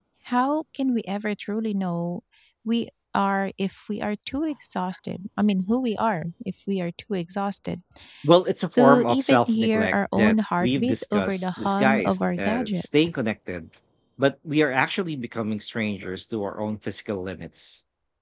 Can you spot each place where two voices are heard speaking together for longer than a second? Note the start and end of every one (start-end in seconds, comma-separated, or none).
8.8-13.0